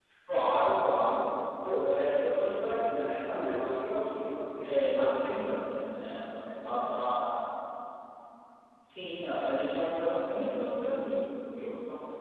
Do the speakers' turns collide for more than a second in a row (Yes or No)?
Yes